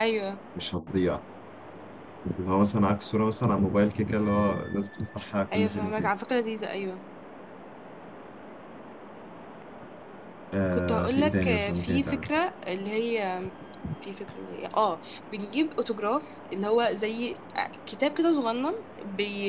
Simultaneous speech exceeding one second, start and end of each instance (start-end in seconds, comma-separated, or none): 10.7-12.3